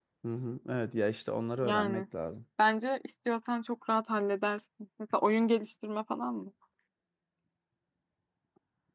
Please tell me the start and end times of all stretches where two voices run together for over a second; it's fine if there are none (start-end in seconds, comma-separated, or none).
none